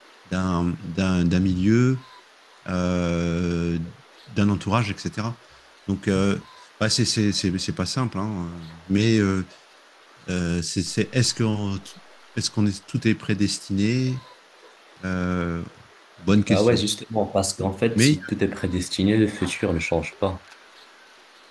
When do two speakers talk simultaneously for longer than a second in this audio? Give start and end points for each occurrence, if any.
none

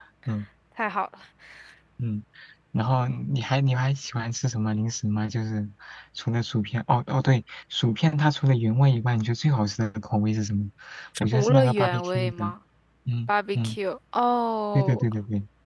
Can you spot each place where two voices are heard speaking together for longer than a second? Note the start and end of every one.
11.2-12.4

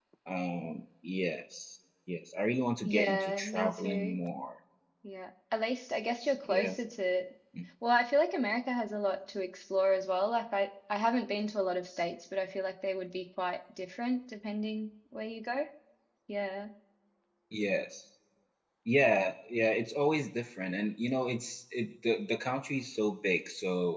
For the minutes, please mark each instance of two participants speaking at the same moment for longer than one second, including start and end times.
2.8-4.2

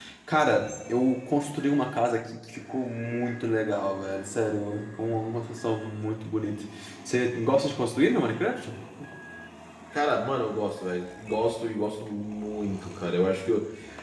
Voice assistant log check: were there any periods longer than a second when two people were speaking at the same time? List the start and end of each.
none

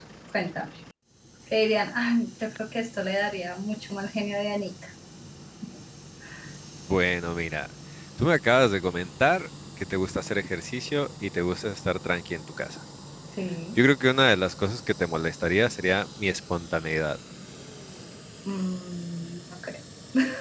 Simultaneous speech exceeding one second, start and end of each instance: none

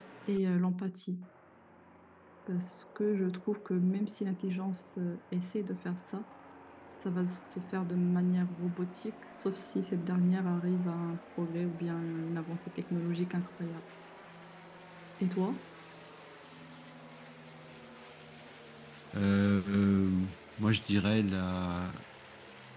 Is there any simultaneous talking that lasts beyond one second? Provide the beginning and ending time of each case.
none

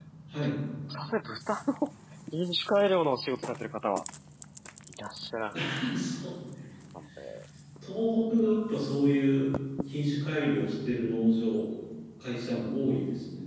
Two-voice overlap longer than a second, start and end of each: none

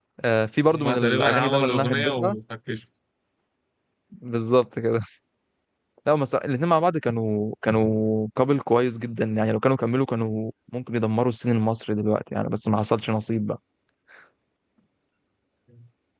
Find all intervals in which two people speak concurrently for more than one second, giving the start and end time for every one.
0.7-2.4

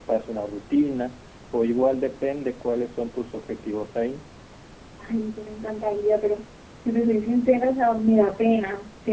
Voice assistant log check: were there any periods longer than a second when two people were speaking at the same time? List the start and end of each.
none

